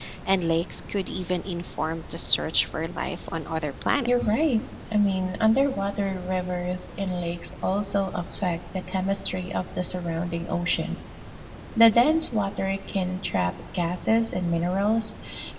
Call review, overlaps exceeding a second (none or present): none